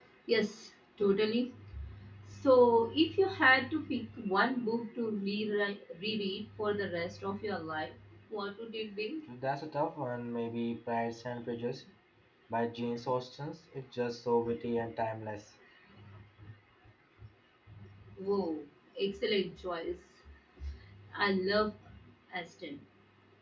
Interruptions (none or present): none